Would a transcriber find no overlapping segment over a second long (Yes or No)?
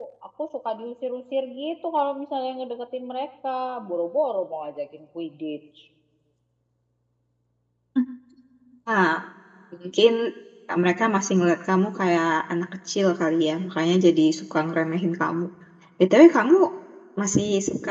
Yes